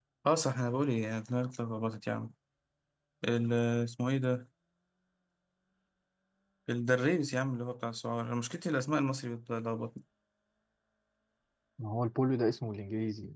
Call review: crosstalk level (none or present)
none